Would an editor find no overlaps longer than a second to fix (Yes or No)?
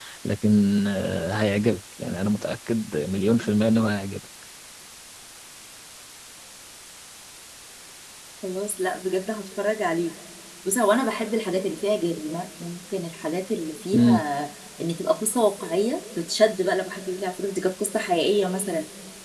Yes